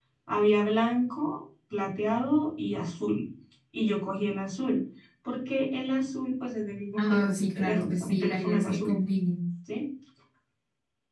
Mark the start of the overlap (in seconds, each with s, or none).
7.0 s